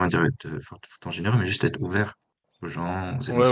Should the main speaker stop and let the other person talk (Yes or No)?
Yes